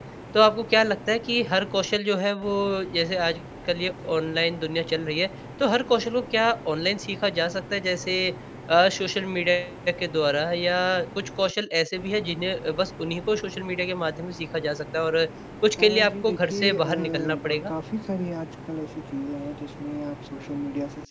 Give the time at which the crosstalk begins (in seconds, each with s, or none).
15.8 s